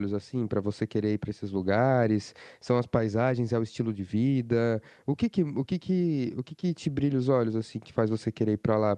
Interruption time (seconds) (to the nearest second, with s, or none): none